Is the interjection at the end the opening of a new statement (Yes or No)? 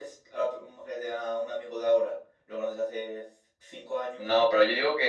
Yes